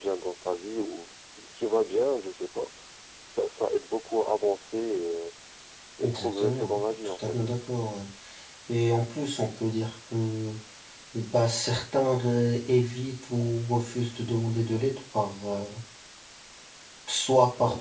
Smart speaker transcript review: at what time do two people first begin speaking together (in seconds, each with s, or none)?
6.0 s